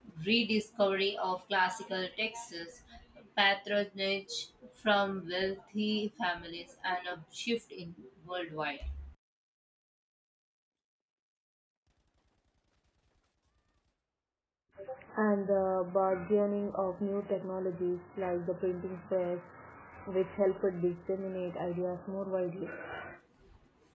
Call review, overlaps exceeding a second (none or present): none